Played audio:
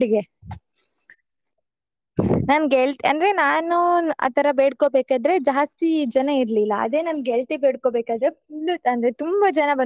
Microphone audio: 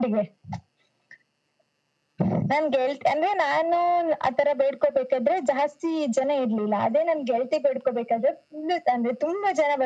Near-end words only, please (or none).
none